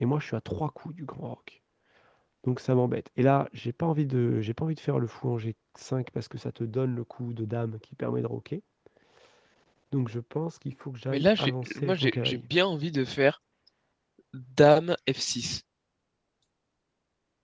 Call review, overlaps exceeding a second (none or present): present